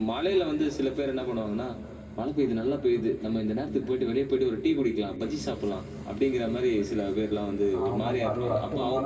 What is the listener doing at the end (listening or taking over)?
taking over